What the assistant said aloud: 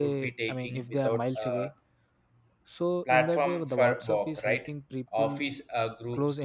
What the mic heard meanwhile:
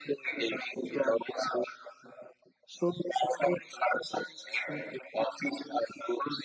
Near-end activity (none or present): none